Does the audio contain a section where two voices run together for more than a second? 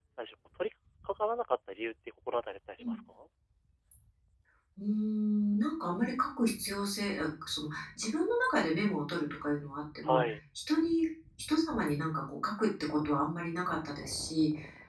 No

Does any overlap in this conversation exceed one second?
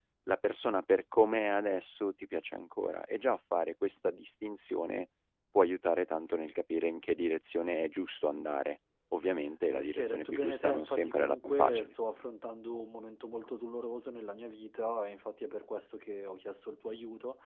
Yes, from 9.7 s

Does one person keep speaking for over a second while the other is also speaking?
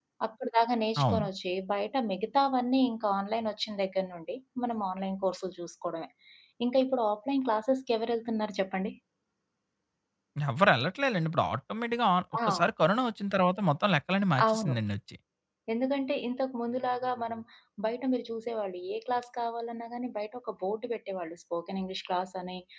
No

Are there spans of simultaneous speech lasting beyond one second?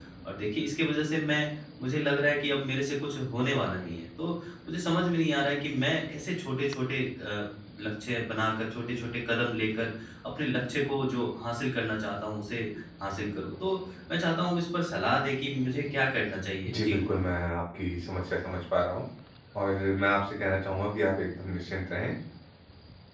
No

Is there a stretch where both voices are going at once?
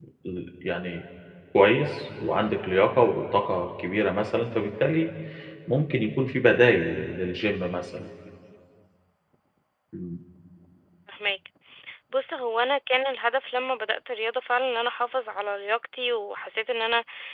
No

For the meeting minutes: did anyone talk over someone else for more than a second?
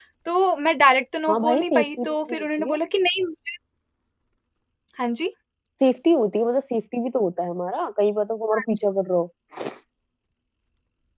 Yes, from 1.3 s

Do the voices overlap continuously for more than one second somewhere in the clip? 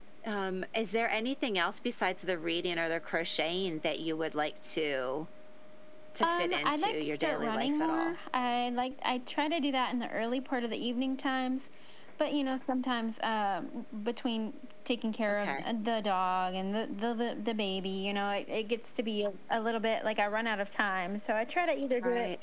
Yes, from 6.2 s

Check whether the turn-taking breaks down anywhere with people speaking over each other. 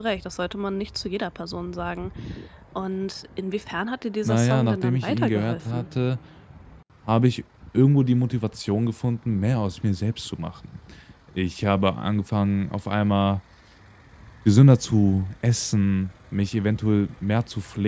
Yes, from 4.2 s

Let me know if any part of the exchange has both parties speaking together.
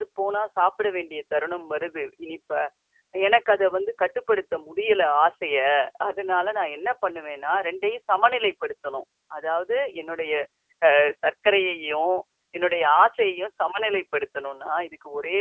No

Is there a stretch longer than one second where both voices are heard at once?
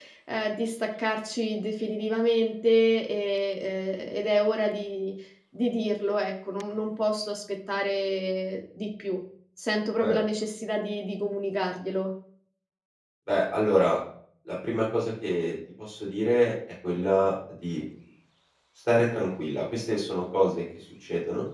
No

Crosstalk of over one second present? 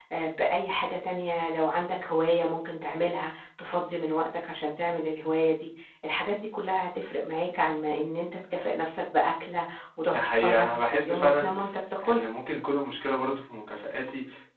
Yes, from 10.1 s

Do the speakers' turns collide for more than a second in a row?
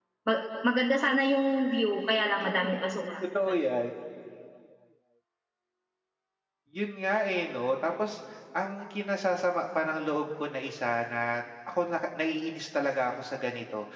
No

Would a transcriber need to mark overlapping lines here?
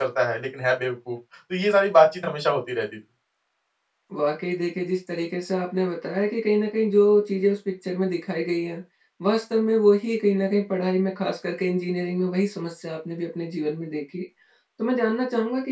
No

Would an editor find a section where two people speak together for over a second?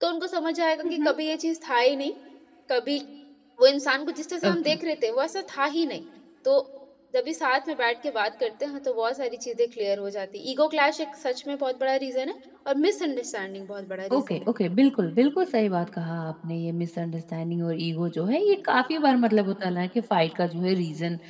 No

